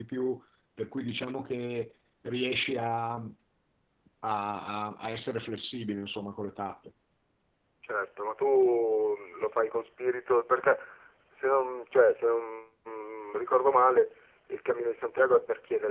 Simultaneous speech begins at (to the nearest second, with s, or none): none